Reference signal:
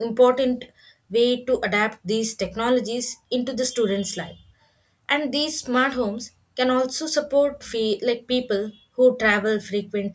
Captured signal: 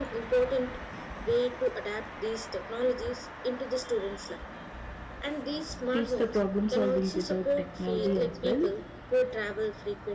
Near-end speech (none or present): present